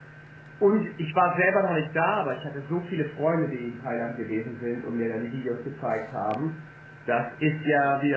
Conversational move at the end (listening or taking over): listening